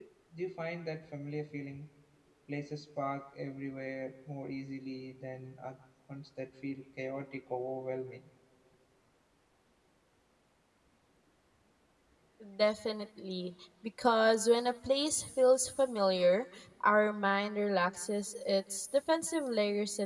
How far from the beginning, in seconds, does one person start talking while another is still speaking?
none

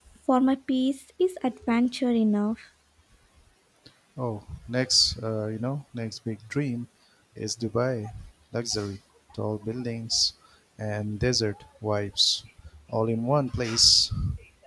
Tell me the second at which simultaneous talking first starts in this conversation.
none

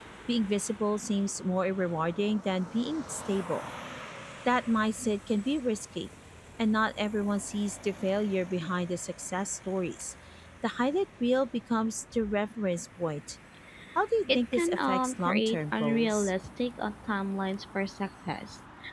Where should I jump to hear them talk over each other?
14 s

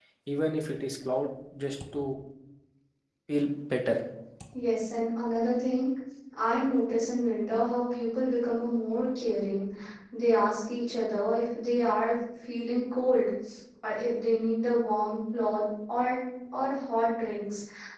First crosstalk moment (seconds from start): none

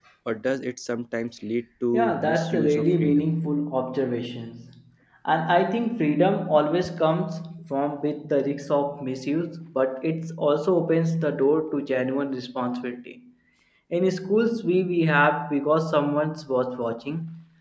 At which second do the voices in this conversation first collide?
2 s

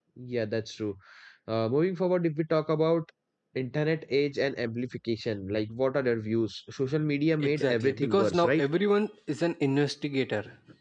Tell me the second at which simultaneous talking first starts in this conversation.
7 s

